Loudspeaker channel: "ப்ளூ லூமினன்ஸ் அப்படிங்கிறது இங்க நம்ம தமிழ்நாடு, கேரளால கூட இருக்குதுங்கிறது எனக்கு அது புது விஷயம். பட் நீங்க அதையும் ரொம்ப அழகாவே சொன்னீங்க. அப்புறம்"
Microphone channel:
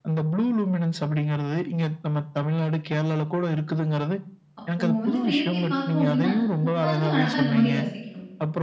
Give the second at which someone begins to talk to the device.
4.6 s

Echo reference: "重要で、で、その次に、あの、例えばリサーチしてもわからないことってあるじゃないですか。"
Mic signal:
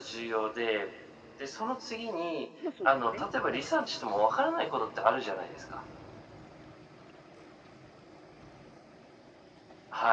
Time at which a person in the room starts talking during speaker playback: 2.6 s

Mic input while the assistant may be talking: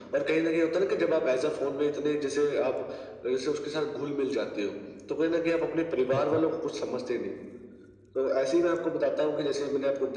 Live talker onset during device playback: 6.1 s

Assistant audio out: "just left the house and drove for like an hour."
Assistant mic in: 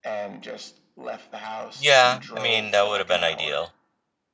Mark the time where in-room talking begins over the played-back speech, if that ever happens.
1.7 s

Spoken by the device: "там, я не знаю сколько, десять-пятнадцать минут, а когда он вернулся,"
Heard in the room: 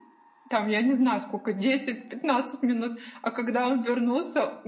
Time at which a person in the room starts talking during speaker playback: none

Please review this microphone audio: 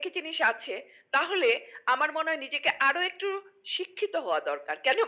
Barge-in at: none

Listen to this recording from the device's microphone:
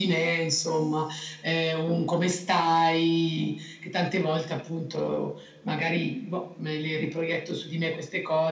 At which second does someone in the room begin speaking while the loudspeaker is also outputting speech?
none

